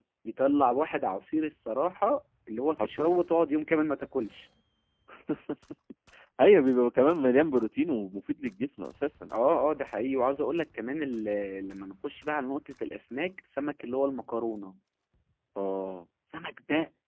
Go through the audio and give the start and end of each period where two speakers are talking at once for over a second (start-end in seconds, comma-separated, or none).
none